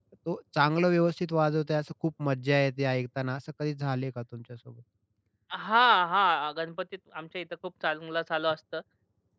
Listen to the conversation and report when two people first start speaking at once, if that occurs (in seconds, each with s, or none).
none